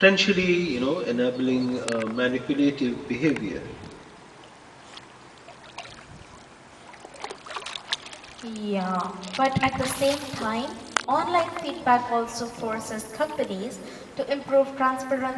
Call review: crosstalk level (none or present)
none